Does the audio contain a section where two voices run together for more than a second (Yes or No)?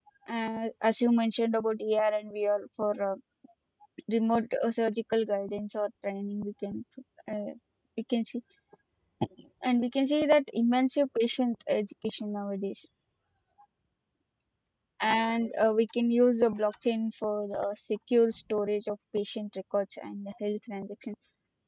No